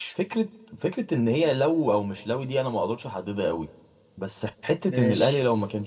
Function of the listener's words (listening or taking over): listening